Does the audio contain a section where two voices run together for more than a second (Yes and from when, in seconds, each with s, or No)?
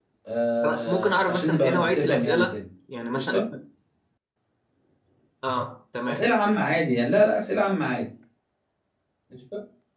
Yes, from 0.6 s